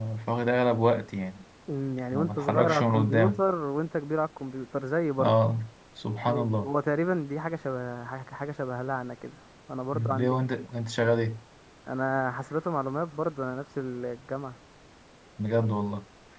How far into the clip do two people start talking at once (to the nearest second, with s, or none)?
2 s